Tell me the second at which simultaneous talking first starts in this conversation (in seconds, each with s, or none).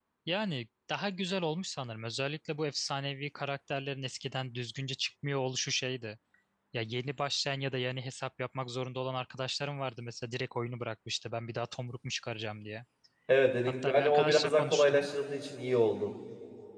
13.8 s